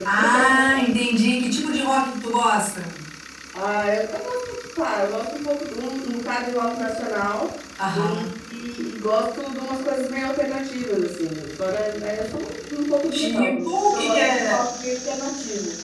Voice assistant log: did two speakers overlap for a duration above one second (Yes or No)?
Yes